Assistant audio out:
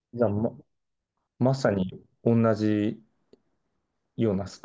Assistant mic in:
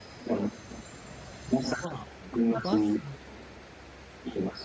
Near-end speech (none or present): present